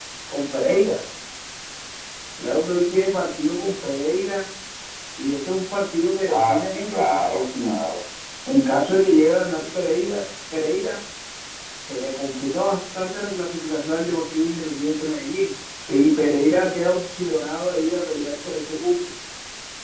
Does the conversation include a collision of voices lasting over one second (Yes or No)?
Yes